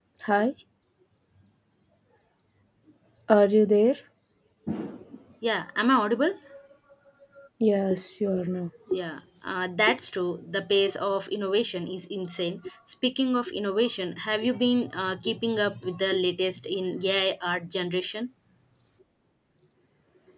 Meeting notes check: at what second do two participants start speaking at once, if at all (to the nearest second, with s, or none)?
none